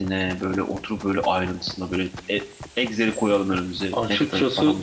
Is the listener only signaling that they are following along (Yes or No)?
No